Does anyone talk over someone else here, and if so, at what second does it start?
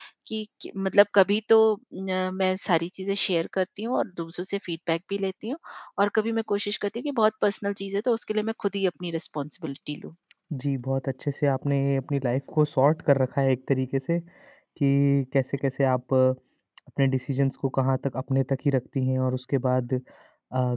none

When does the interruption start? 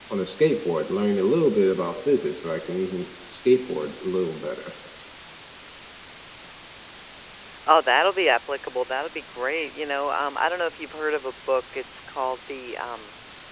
none

